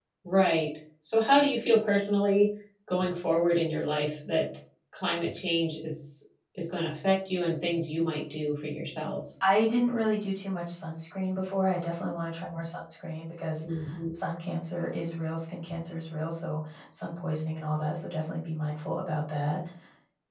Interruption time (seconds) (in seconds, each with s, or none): none